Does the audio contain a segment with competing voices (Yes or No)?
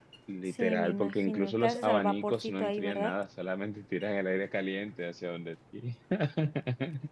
Yes